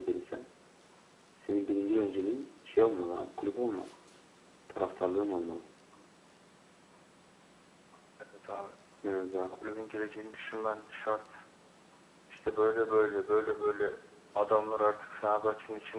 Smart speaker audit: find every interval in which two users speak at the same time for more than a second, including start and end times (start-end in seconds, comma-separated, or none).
none